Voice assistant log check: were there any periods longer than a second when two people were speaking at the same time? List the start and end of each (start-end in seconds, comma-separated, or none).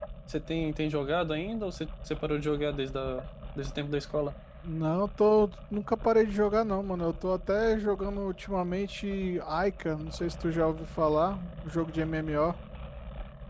none